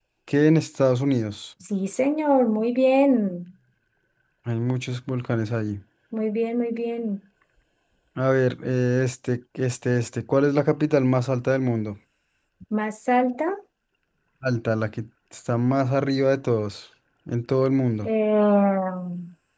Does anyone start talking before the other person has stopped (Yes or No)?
No